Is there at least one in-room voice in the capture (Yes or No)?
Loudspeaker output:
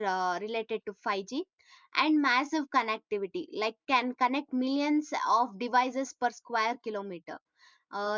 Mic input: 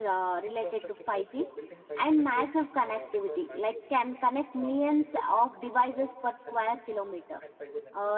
Yes